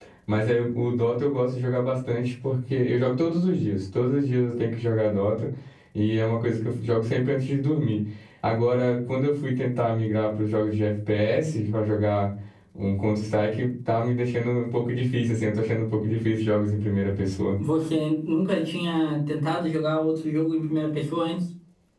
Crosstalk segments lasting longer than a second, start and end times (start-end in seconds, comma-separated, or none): none